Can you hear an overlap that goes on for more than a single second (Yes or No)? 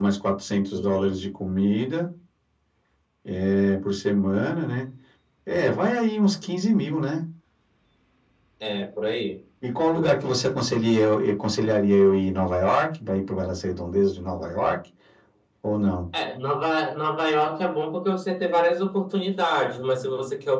No